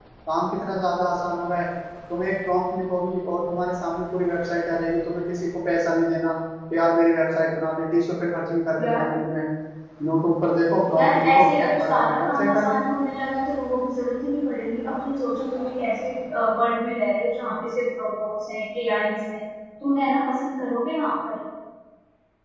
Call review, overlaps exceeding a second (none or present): present